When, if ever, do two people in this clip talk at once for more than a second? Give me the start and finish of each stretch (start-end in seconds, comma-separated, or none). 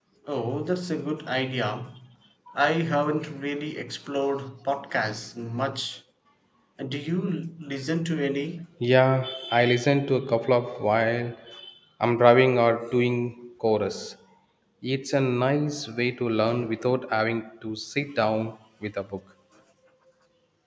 none